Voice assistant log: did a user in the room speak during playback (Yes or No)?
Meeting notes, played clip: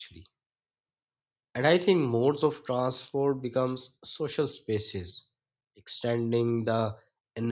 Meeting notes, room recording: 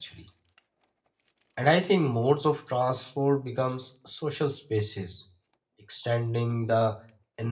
No